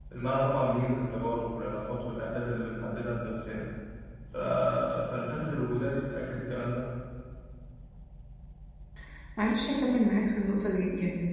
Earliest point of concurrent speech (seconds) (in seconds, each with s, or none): none